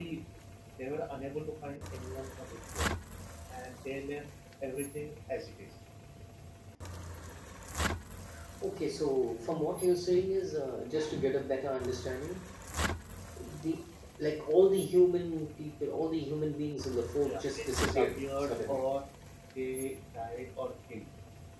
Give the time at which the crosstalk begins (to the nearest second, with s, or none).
17 s